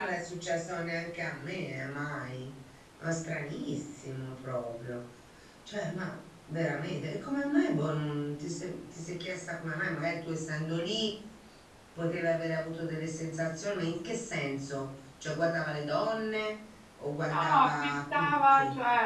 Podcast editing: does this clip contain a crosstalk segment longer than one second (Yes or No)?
Yes